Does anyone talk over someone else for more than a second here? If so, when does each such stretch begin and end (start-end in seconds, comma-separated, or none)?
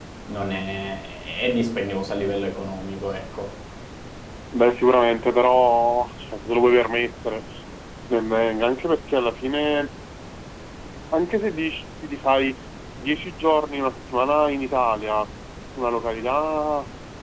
none